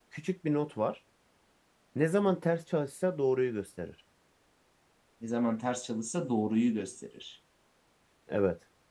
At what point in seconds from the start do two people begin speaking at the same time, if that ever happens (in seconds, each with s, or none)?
none